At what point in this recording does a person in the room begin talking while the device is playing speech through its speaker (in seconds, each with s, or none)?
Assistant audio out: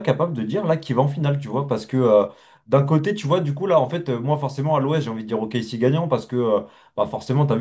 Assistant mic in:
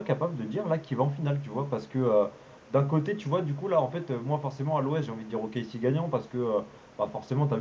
none